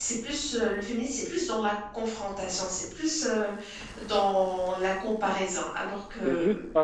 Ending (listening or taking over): taking over